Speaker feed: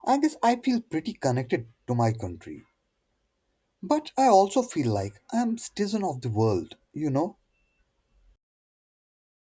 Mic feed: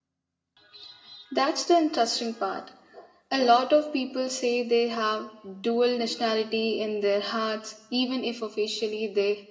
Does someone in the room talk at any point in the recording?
Yes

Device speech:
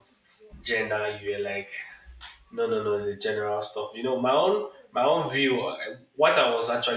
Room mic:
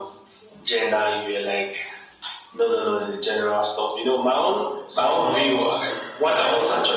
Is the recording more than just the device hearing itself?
Yes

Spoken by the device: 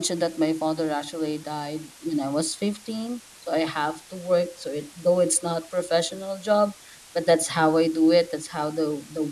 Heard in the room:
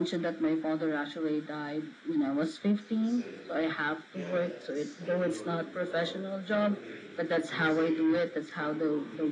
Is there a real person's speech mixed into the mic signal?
Yes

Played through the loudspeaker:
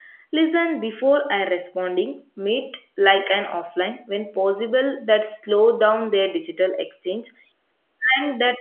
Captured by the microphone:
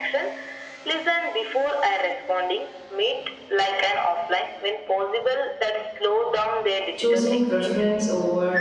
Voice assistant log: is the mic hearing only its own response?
No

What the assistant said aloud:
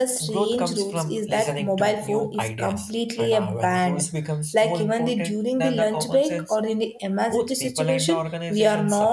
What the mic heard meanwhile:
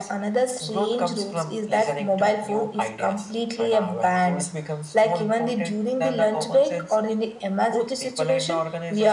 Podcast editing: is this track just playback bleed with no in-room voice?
Yes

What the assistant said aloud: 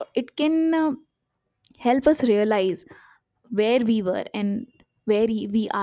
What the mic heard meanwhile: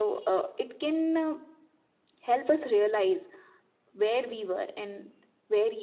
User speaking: No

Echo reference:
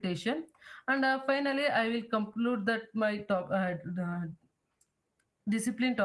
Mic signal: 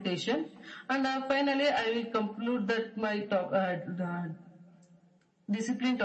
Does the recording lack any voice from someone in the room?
Yes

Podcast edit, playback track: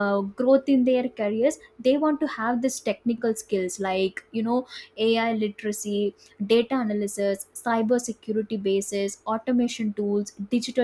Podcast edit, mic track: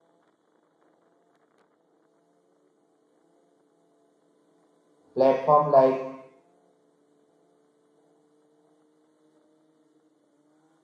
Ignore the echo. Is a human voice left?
Yes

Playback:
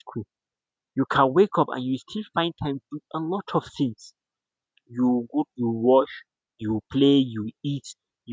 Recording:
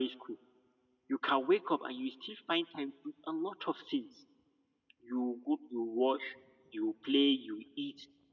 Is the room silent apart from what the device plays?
Yes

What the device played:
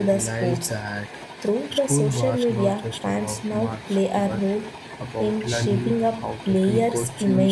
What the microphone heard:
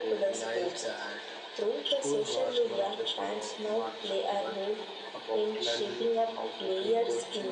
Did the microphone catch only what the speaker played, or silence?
Yes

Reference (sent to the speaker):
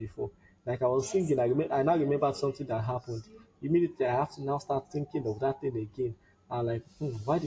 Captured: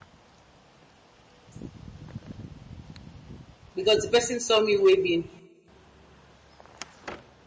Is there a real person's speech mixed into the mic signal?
Yes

